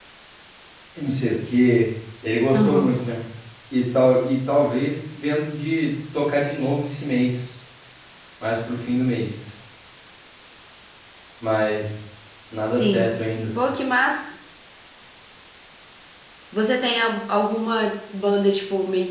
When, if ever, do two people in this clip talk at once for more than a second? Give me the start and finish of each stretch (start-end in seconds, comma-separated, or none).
none